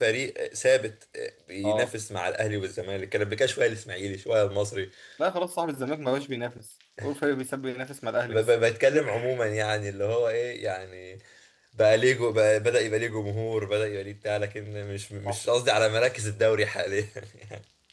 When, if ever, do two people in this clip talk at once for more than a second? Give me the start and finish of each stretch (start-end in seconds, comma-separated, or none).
none